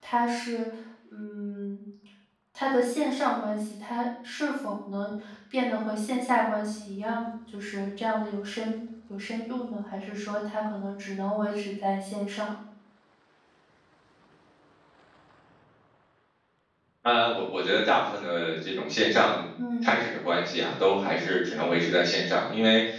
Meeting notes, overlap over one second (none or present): none